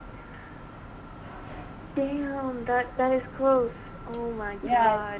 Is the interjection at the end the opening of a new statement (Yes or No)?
Yes